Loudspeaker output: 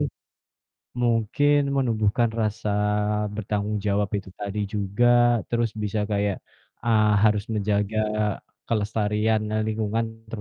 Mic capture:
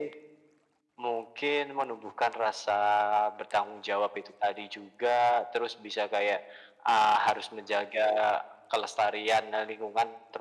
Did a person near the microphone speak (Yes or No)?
No